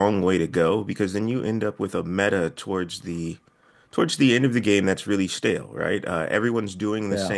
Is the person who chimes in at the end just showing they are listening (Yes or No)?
Yes